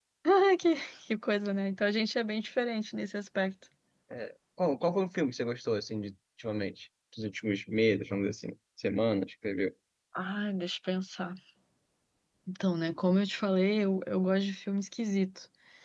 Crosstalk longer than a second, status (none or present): none